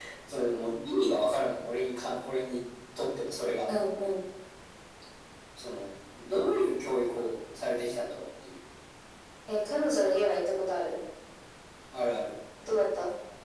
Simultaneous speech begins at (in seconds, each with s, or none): none